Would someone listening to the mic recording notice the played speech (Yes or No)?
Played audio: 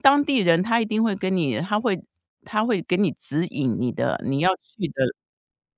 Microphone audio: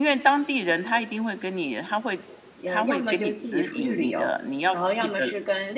Yes